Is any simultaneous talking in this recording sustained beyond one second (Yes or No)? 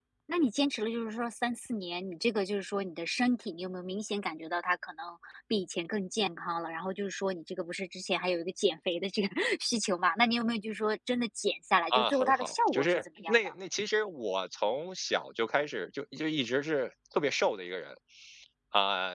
Yes